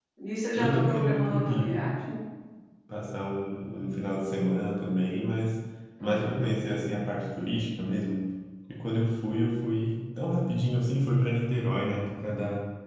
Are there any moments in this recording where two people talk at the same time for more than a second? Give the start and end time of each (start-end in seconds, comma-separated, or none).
0.6-1.8